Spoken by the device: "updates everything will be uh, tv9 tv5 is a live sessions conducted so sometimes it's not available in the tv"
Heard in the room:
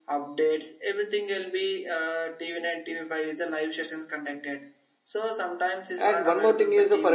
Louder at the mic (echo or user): user